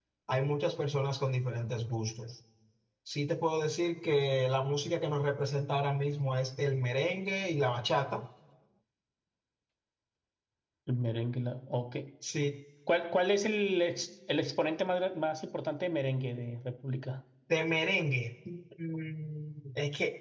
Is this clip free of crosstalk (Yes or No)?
Yes